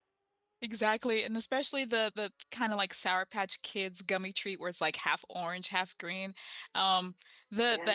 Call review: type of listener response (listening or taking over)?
listening